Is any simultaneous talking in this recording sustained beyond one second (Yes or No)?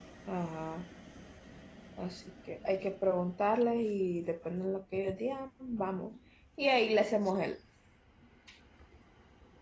No